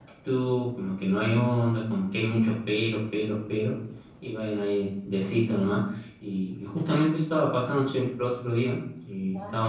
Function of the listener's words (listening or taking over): listening